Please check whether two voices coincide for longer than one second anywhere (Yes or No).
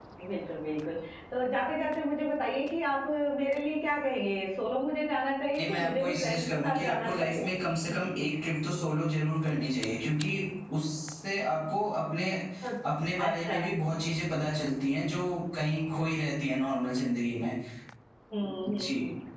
Yes